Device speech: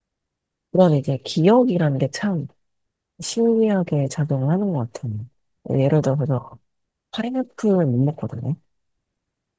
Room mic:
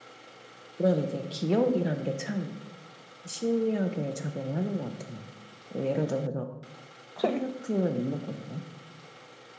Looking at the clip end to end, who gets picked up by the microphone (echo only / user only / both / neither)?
both